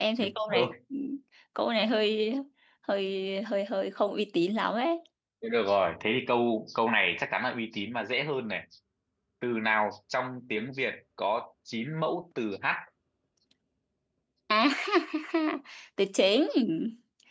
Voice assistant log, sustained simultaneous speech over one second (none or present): none